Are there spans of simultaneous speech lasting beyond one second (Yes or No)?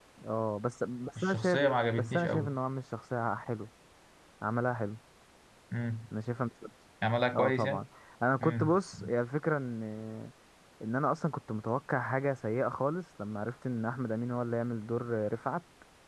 Yes